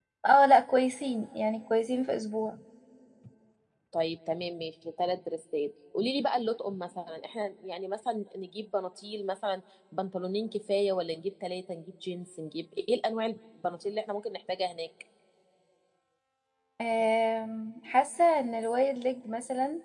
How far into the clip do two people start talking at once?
none

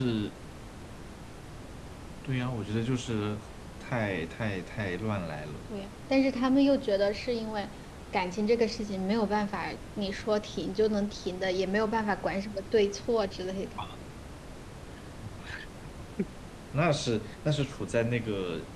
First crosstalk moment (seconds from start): none

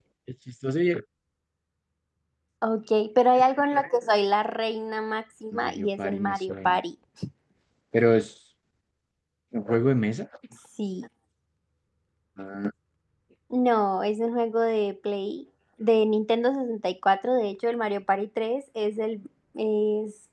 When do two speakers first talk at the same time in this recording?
6 s

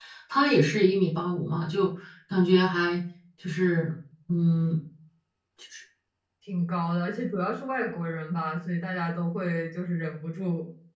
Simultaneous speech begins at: none

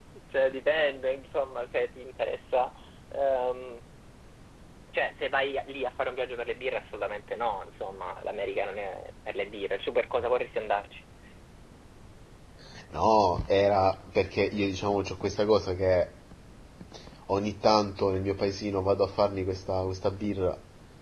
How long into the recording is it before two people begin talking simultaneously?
none

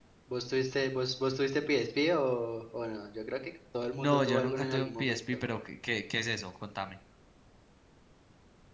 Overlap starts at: 4 s

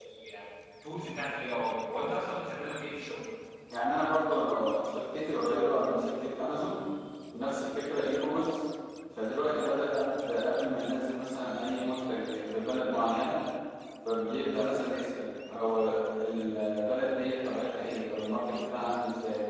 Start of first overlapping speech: none

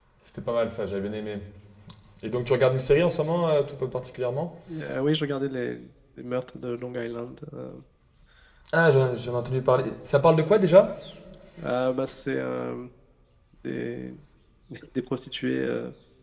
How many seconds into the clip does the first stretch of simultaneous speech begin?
none

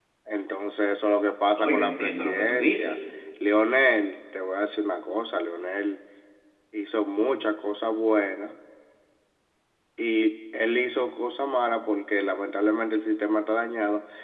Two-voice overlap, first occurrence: 2 s

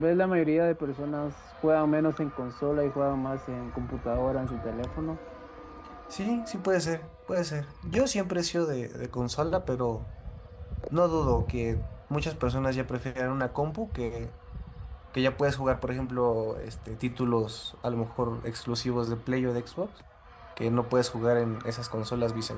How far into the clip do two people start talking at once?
none

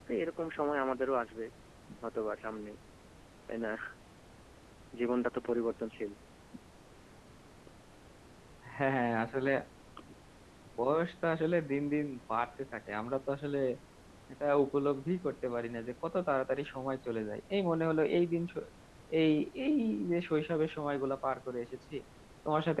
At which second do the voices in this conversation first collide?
none

